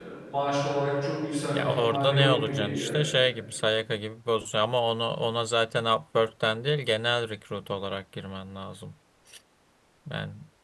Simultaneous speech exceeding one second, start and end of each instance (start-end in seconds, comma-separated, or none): 1.5-3.0